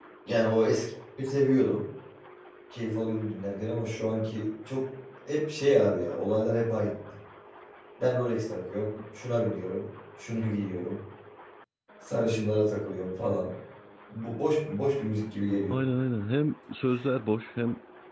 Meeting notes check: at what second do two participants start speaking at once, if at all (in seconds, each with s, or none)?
none